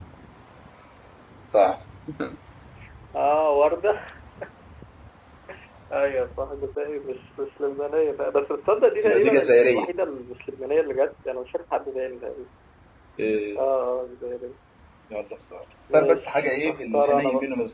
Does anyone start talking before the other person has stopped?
Yes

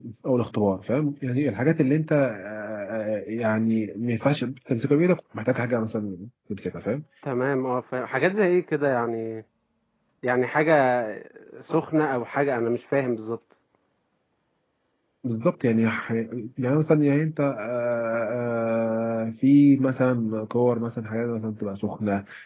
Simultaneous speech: No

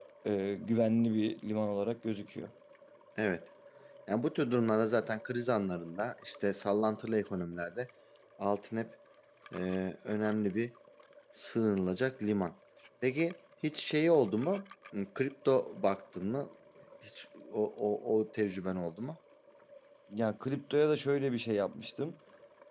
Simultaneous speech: No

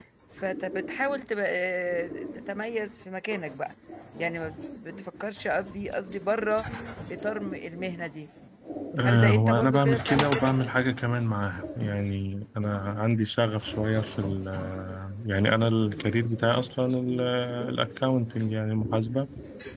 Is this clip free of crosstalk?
No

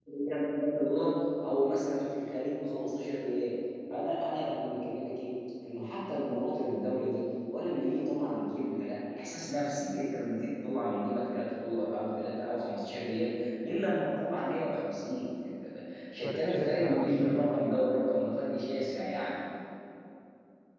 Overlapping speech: Yes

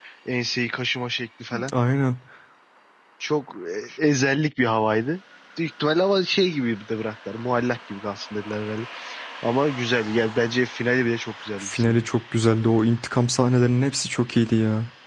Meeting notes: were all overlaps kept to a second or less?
Yes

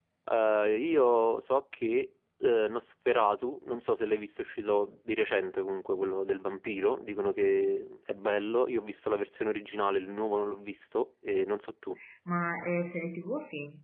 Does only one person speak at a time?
Yes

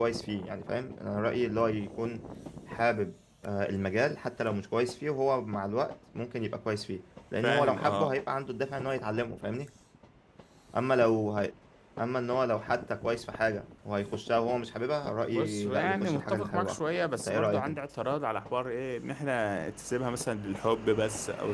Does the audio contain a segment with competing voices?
Yes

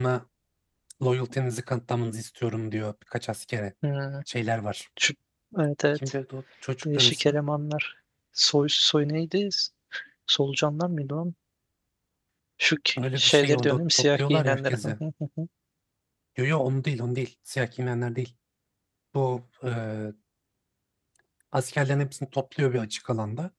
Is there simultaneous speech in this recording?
Yes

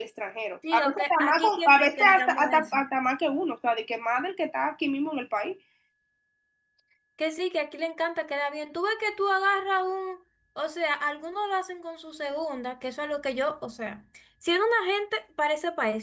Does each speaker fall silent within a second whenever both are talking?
No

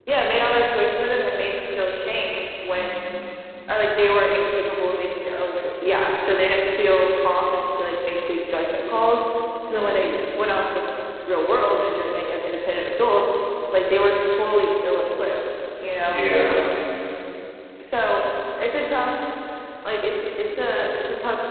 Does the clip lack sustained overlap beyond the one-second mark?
Yes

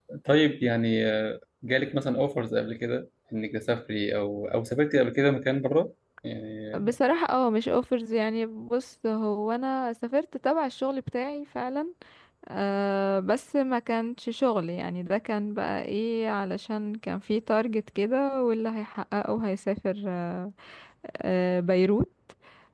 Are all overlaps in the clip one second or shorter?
Yes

